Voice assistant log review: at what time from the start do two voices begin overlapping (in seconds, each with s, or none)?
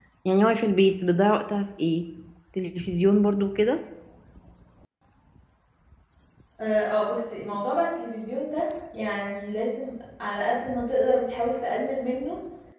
none